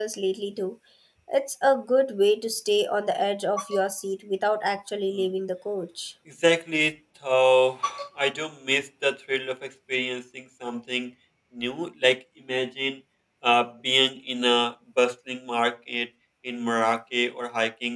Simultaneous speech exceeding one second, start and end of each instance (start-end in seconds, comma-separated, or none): none